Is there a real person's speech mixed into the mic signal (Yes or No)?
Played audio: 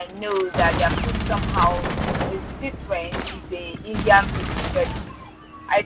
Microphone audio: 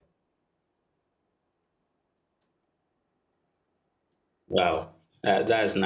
Yes